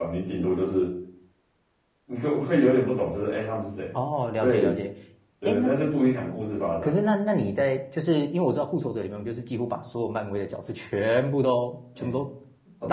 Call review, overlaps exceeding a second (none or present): none